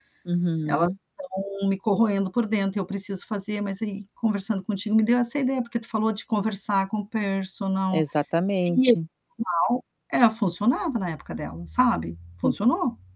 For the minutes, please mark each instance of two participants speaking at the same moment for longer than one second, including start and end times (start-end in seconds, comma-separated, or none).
none